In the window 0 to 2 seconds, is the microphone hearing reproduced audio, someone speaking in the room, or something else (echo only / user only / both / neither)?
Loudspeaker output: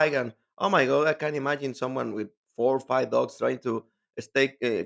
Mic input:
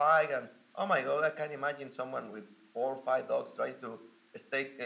echo only